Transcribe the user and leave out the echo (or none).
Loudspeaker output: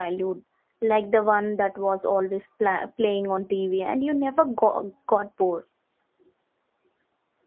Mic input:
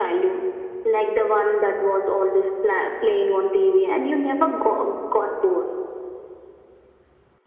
none